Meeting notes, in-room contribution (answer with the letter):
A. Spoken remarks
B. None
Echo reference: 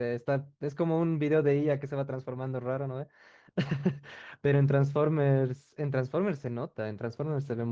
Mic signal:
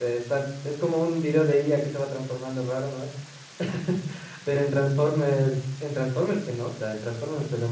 B